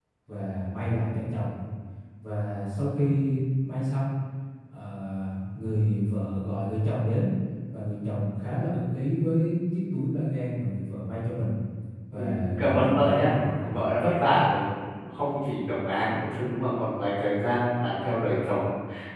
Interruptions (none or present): present